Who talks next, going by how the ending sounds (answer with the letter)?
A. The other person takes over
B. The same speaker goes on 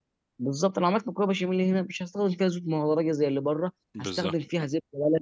B